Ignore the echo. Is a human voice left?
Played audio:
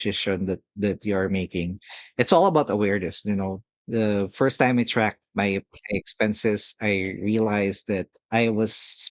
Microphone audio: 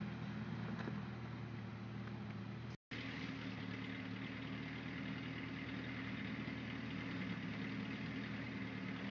No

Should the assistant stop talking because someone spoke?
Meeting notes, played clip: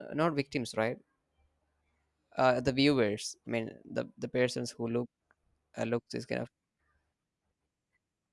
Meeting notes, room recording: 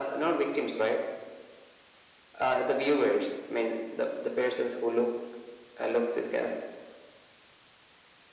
No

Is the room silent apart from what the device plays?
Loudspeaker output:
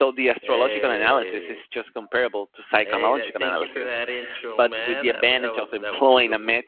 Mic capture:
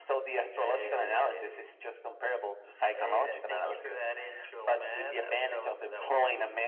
Yes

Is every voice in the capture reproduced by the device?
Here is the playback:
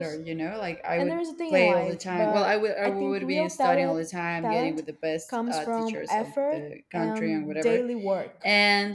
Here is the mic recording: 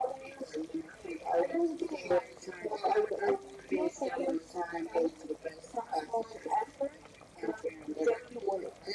Yes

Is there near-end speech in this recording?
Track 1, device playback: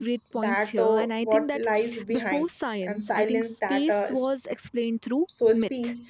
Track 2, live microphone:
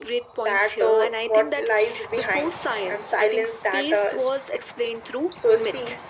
No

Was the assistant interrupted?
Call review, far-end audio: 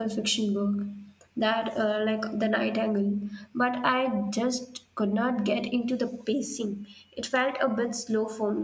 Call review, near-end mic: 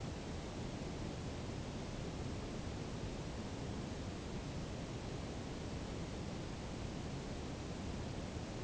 No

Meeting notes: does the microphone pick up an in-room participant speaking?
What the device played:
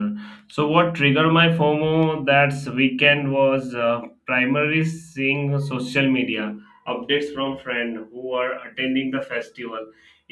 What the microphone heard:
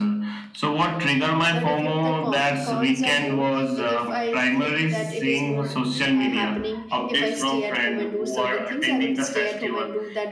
Yes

